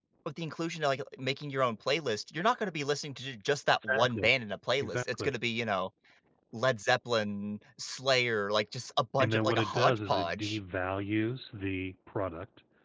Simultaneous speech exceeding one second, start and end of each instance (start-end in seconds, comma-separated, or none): 9.2-10.6